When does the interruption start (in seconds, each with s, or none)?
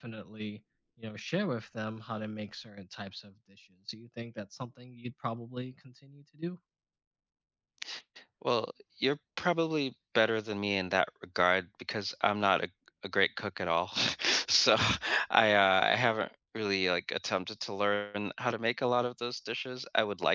none